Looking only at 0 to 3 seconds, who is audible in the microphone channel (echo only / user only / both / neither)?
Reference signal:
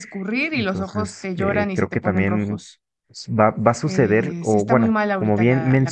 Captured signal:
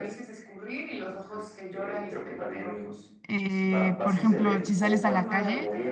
echo only